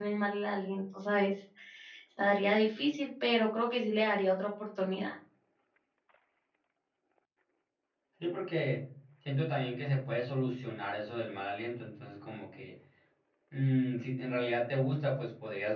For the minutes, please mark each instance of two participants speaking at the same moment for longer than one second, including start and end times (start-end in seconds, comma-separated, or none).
none